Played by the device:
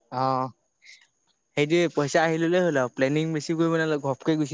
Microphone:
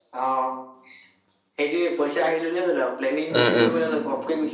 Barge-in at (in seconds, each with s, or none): 3.4 s